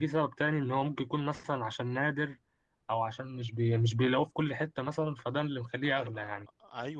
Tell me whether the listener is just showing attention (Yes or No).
No